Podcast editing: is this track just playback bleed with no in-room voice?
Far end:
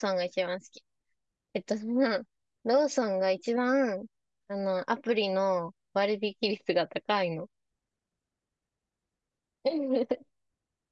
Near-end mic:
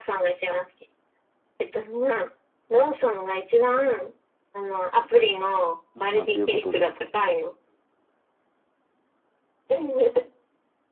No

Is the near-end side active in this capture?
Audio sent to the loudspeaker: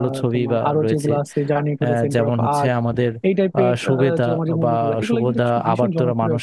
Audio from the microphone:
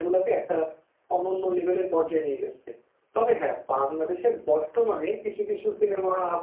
Yes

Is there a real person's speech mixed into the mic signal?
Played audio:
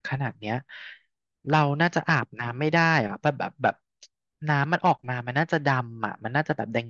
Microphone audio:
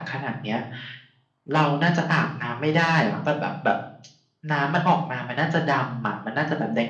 No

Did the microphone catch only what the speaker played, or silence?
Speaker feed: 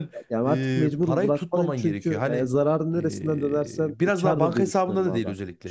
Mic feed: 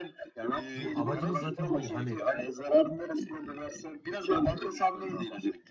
No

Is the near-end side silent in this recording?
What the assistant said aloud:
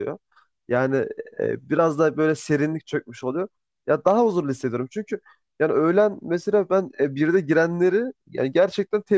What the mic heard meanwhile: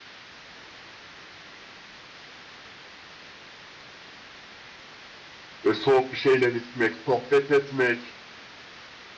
No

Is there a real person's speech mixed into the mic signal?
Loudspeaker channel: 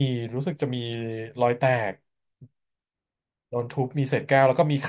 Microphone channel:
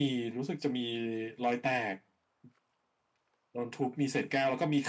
No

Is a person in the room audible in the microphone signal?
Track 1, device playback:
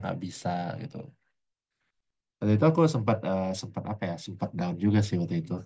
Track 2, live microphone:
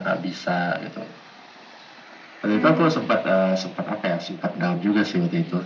Yes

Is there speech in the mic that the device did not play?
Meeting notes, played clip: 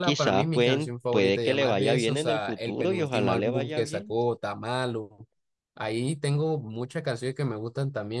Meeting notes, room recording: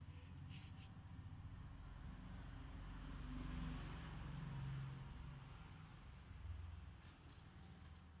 No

